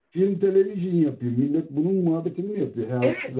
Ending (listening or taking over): taking over